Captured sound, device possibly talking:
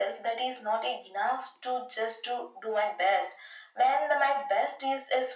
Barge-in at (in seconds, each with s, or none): none